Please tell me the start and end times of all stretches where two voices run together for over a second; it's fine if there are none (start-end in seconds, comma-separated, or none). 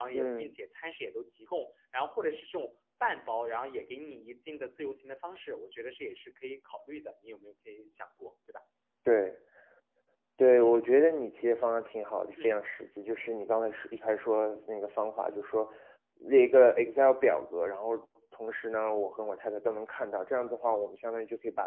none